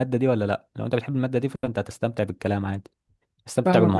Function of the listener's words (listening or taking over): taking over